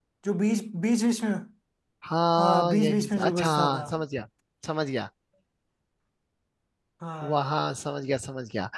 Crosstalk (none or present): present